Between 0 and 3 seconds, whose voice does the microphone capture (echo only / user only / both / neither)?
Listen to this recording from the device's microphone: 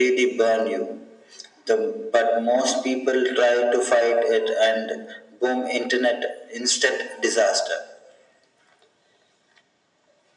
echo only